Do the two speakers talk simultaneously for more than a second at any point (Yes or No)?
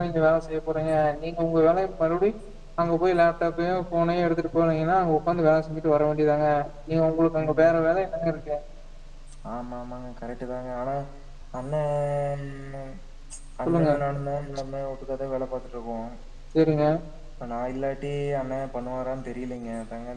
No